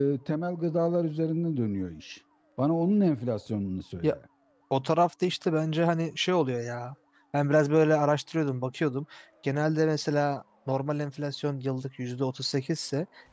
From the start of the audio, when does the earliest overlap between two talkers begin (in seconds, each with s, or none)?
none